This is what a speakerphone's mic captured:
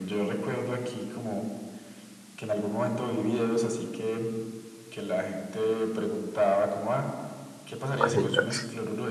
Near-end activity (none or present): present